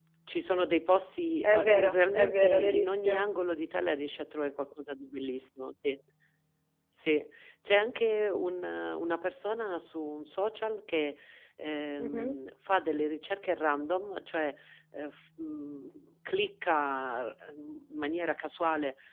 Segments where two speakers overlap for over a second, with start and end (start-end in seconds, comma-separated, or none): 1.4-3.2